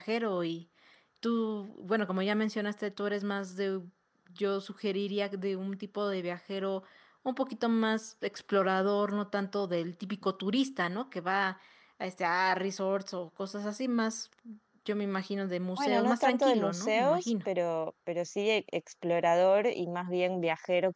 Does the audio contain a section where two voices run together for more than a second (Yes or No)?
Yes